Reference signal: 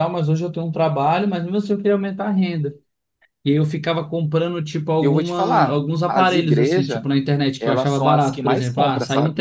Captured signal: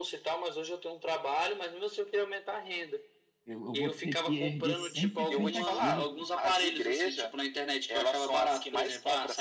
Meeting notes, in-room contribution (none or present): present